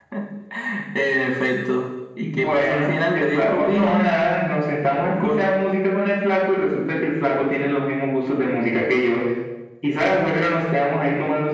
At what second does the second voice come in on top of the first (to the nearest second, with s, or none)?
2 s